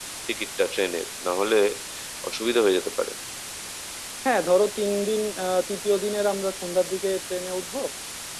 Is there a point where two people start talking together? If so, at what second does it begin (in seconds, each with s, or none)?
none